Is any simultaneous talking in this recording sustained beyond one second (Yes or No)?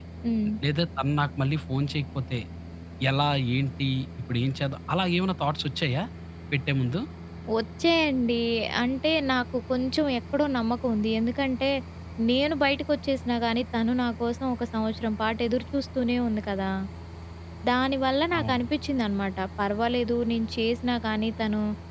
No